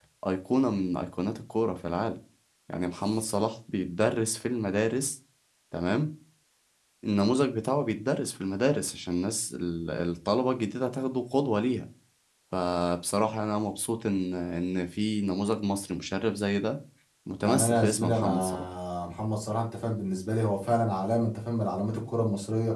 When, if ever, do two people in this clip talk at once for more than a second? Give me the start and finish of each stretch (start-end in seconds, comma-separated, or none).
17.4-18.7